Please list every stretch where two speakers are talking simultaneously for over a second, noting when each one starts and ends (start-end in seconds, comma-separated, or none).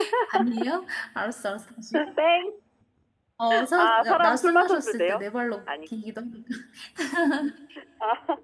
3.8-5.2